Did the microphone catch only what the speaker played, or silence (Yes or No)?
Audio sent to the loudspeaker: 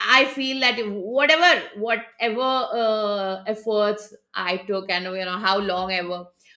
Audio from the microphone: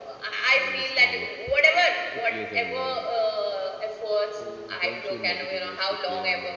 No